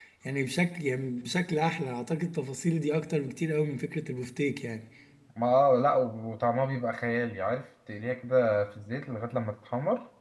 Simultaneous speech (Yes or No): No